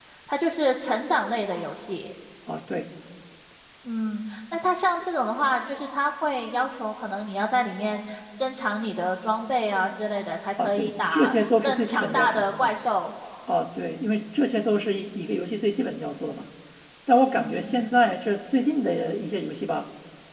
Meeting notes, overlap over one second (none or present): present